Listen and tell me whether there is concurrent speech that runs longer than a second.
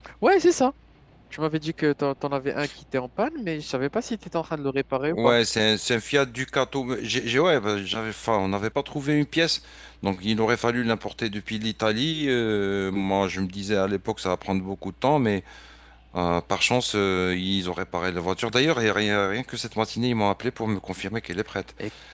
No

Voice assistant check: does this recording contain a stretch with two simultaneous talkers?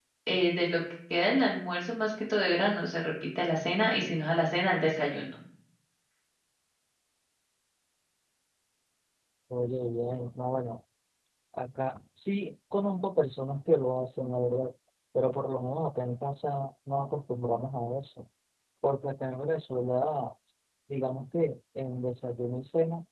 No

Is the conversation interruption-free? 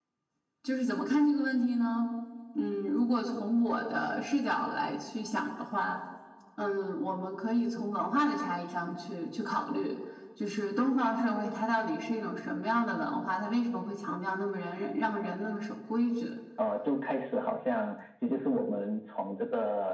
Yes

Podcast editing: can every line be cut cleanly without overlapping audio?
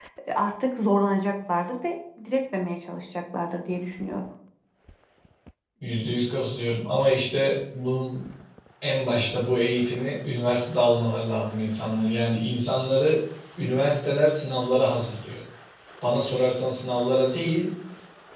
Yes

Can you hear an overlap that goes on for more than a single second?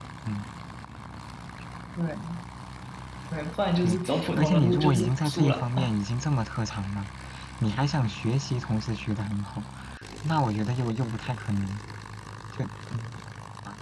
Yes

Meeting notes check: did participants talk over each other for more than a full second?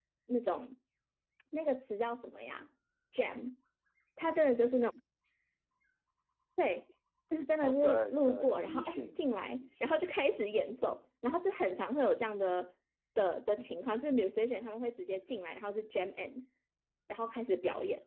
Yes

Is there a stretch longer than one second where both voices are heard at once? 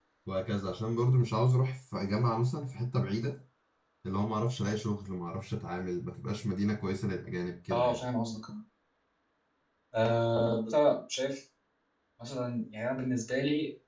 No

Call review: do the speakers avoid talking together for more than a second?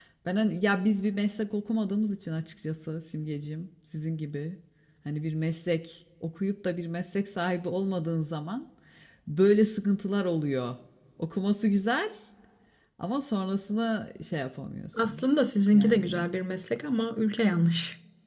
Yes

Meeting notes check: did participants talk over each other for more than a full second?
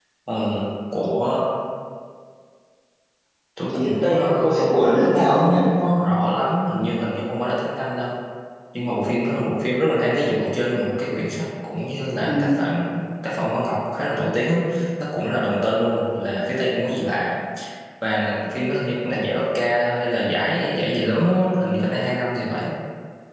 Yes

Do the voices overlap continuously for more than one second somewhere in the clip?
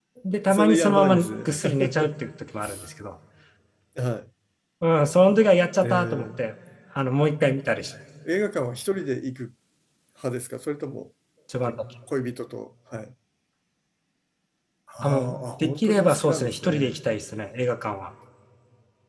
Yes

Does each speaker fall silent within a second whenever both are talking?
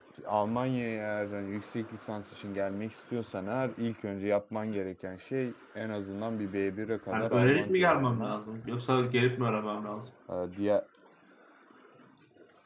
No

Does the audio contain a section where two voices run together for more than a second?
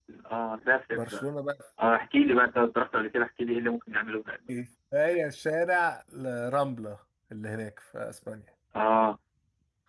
No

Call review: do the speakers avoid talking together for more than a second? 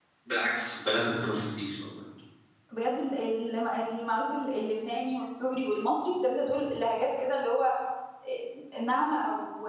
Yes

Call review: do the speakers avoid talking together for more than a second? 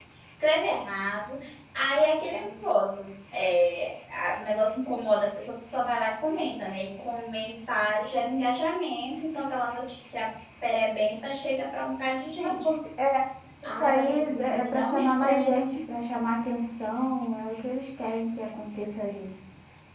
No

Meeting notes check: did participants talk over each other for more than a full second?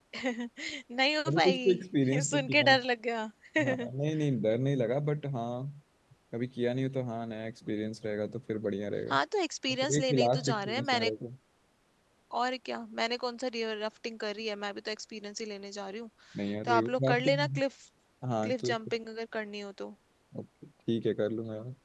Yes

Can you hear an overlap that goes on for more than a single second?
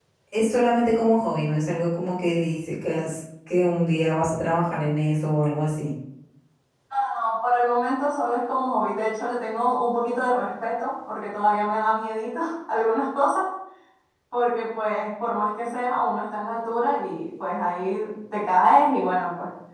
No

